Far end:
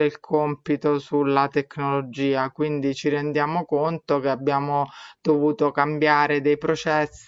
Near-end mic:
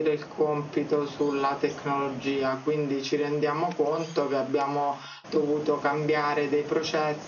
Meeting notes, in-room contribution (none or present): none